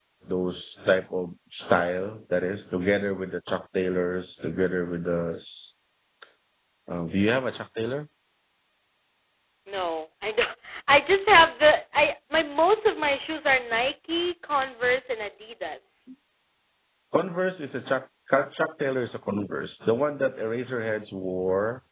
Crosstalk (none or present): none